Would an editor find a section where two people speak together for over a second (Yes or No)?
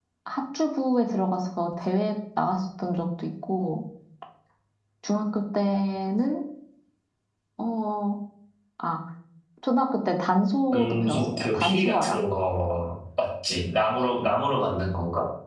Yes